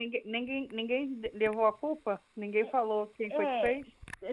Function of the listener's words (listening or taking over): taking over